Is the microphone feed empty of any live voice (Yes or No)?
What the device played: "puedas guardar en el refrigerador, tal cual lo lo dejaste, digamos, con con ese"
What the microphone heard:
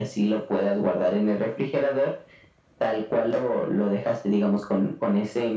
Yes